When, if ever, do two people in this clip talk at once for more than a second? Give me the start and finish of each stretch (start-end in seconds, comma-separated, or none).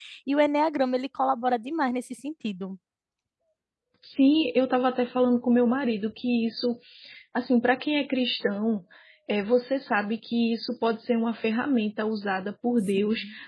none